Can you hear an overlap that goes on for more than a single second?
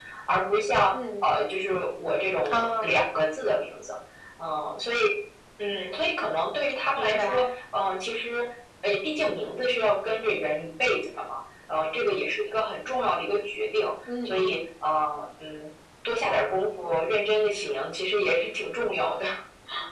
No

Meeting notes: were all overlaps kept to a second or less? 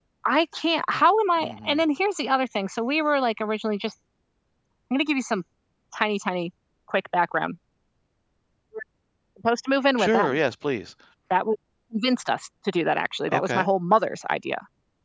Yes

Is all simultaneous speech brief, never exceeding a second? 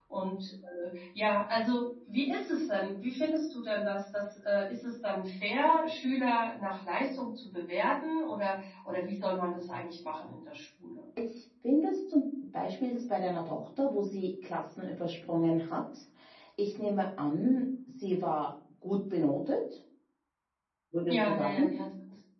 Yes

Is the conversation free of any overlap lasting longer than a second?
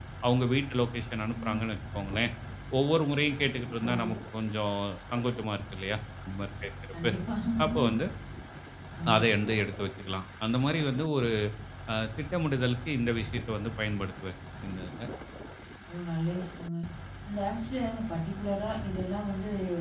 Yes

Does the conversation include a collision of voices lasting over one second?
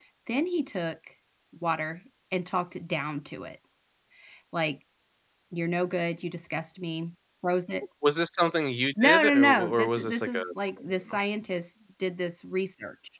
Yes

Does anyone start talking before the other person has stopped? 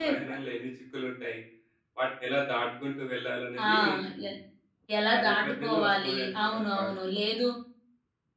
Yes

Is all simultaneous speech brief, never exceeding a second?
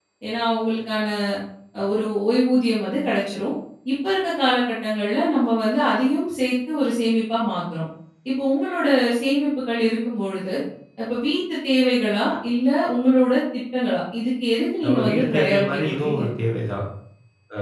No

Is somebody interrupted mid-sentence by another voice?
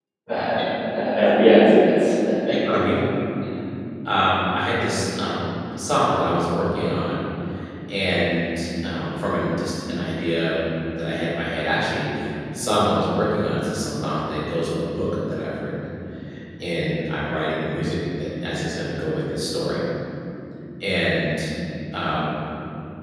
No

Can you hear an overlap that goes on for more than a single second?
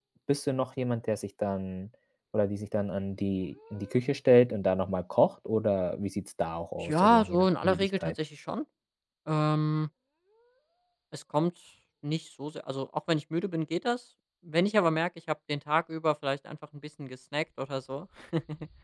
Yes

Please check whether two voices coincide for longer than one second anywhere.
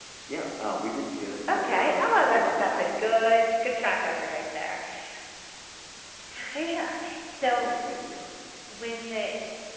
Yes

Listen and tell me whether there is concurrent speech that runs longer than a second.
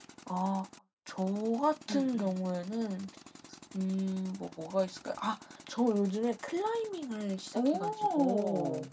Yes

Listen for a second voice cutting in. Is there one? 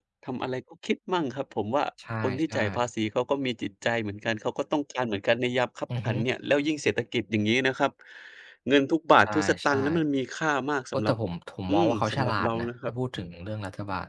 Yes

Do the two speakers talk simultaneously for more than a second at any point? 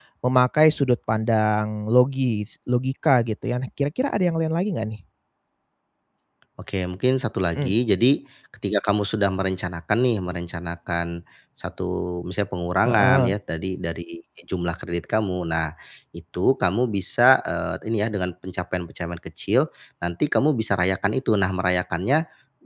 No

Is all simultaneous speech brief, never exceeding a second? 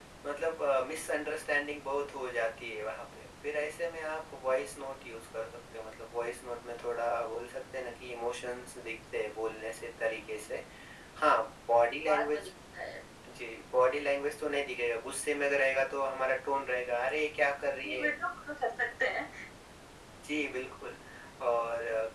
Yes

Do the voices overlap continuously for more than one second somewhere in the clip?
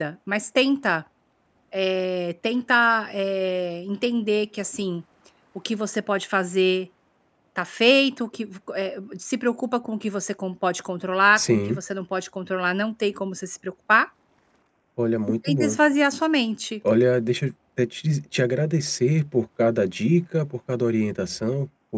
No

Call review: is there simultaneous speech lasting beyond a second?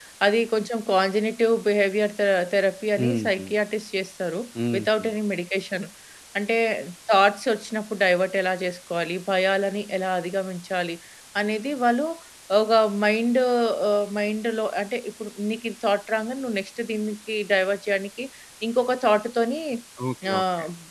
No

